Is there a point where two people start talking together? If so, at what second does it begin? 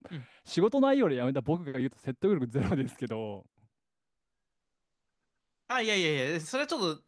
none

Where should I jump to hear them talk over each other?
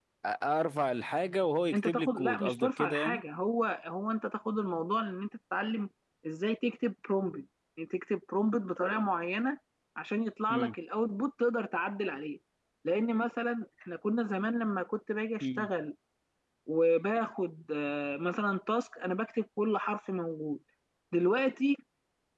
1.7 s

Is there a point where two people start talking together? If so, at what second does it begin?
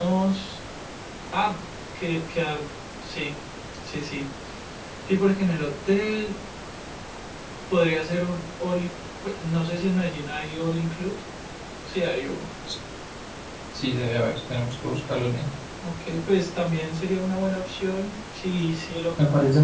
none

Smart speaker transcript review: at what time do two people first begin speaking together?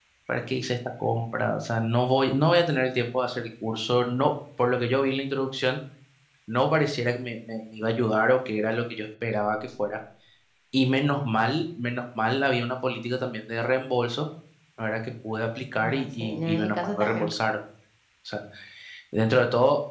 15.7 s

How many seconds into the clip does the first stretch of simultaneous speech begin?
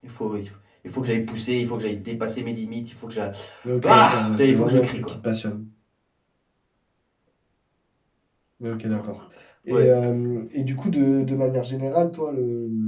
3.8 s

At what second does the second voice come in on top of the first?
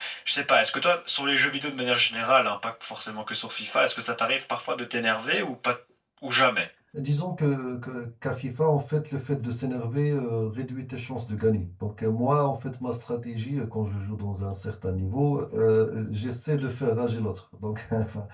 none

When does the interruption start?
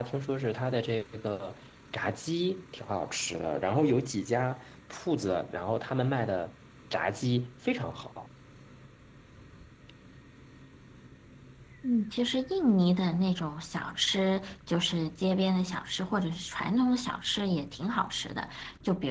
none

